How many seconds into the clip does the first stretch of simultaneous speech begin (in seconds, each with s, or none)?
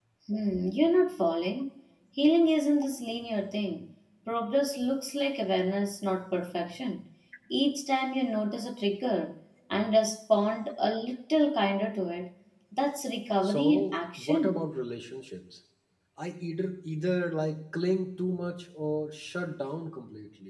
13.4 s